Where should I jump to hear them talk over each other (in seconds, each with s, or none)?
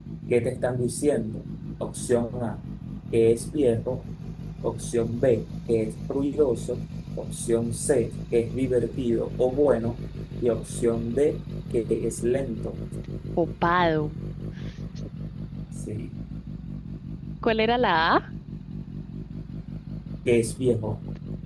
none